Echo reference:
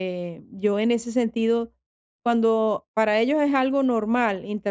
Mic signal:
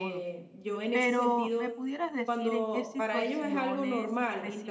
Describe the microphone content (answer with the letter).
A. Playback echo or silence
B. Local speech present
B